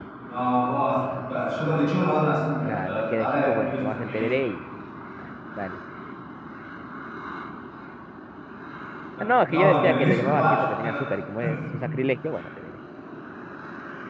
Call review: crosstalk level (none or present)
present